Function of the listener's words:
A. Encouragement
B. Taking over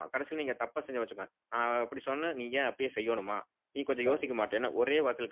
A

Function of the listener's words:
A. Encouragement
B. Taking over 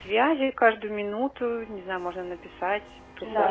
B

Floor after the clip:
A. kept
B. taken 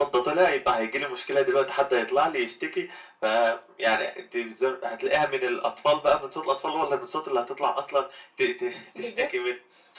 B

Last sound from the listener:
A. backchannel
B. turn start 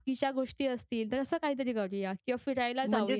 B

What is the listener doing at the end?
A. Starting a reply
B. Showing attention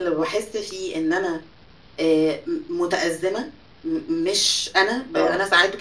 B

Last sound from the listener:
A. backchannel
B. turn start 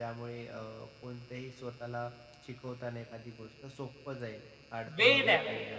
B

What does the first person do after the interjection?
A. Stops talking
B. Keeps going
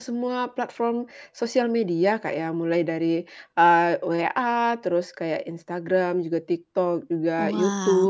B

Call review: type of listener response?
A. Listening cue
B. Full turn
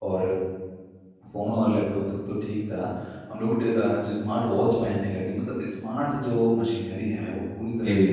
A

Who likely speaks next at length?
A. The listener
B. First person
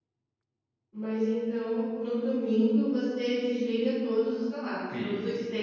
A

